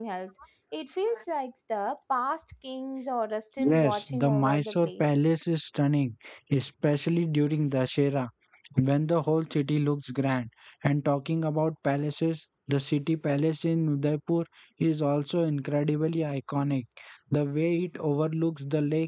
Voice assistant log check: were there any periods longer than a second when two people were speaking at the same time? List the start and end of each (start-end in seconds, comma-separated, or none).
3.6-5.2